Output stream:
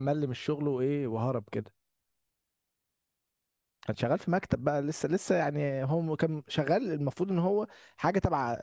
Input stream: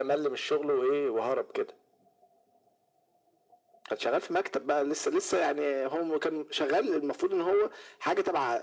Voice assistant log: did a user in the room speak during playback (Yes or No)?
No